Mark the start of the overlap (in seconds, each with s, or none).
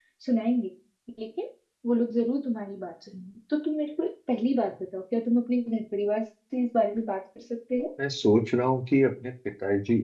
none